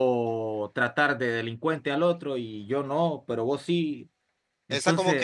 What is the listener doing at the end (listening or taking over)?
taking over